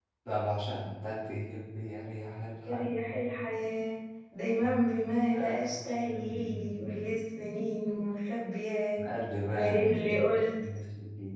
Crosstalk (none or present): present